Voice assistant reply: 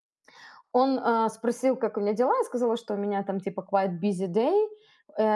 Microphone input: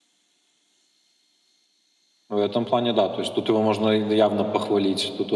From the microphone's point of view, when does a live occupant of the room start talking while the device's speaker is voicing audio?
2.3 s

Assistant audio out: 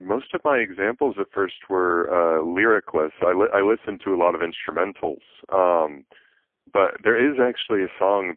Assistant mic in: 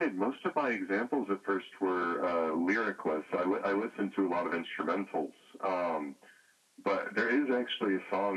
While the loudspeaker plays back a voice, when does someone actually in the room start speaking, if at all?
none

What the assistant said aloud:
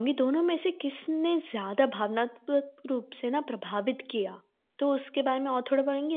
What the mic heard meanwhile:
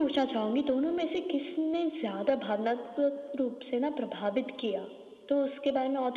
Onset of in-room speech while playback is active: none

